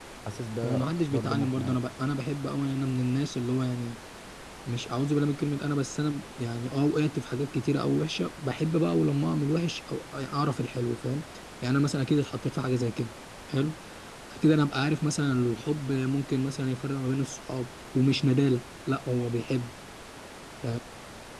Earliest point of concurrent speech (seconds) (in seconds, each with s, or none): 0.6 s